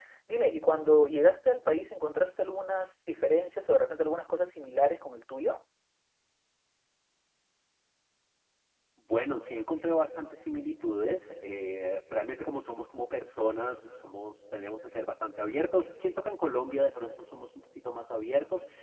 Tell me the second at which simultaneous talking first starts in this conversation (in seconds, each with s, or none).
none